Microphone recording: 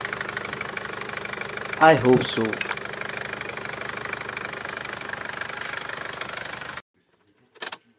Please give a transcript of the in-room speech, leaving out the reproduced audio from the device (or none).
I hope so.